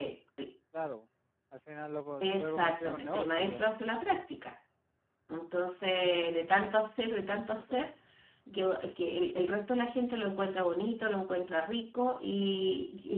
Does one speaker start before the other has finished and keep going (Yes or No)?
Yes